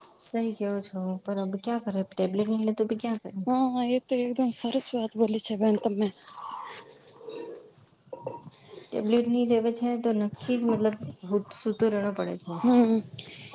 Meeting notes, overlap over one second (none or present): none